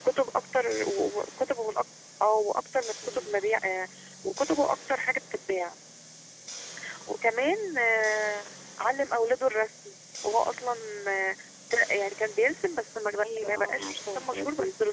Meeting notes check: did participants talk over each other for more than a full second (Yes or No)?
Yes